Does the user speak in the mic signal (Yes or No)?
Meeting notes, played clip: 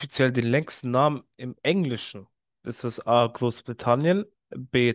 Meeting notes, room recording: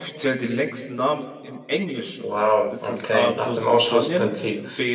Yes